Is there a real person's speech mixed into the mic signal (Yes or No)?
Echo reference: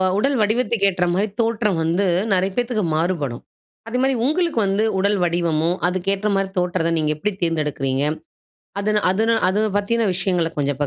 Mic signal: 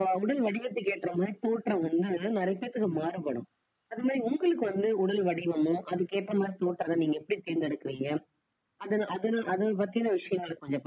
No